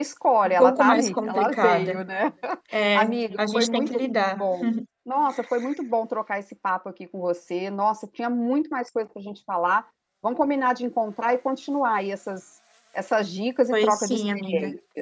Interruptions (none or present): present